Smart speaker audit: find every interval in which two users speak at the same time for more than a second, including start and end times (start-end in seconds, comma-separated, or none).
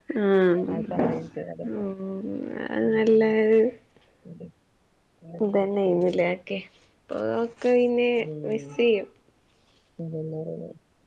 none